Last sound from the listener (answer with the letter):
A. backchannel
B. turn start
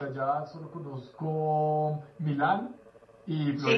A